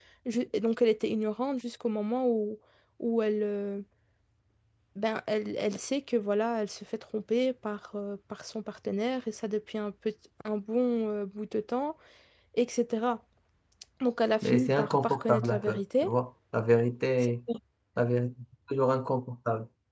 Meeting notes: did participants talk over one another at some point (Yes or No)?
Yes